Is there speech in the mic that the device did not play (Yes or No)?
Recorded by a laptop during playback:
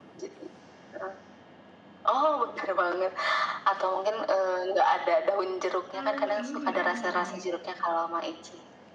Yes